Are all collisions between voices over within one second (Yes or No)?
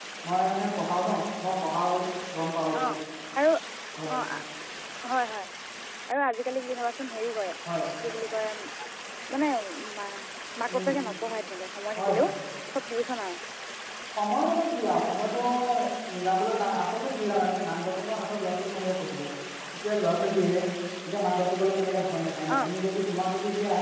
Yes